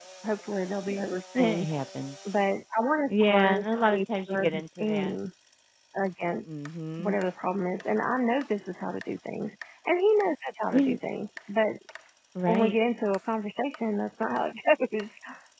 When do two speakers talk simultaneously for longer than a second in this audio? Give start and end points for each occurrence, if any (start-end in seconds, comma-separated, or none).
3.1-5.1